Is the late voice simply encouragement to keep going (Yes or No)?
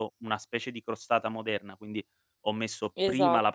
Yes